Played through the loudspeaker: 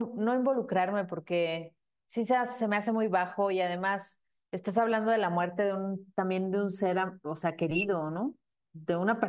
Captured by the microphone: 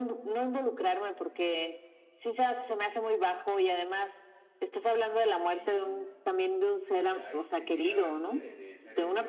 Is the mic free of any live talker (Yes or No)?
No